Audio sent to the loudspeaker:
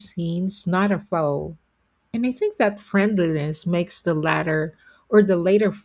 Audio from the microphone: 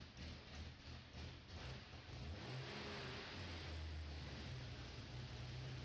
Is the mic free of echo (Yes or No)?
Yes